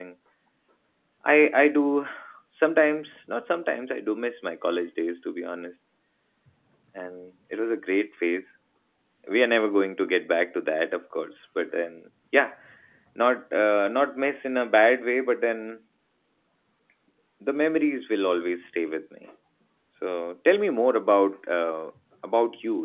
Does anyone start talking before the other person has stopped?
No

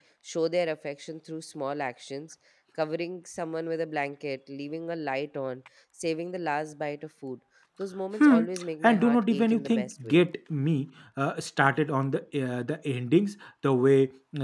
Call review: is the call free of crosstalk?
No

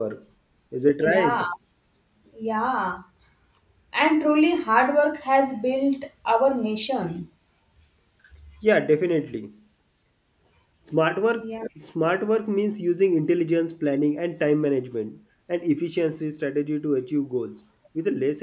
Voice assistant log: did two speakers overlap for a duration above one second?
No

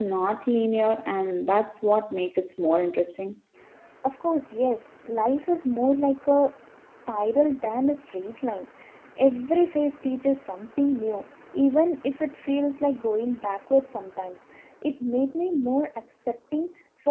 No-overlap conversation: Yes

